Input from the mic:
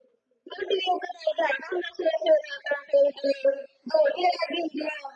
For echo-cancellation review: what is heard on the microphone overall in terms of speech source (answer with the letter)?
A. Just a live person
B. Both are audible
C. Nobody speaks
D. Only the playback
D